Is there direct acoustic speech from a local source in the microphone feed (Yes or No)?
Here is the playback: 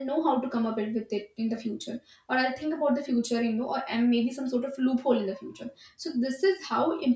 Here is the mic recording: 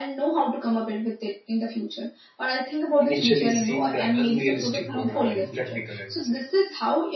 Yes